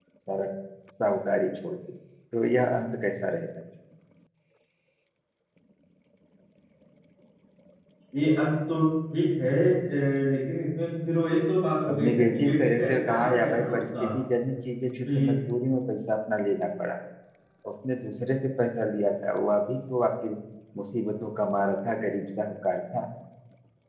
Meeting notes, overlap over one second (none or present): present